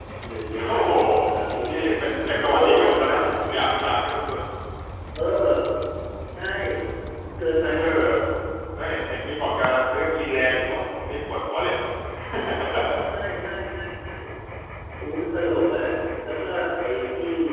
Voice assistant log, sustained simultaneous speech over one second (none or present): present